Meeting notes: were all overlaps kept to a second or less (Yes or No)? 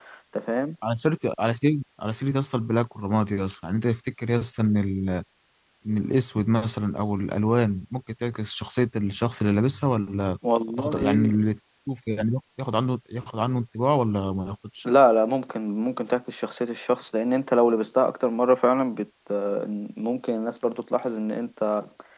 Yes